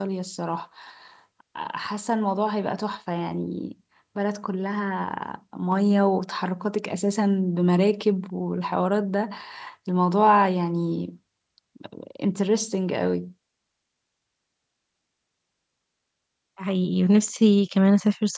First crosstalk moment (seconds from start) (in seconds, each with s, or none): none